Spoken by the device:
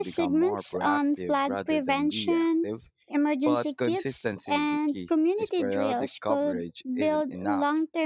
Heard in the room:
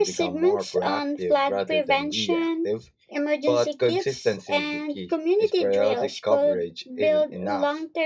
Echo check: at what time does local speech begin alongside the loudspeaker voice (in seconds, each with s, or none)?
none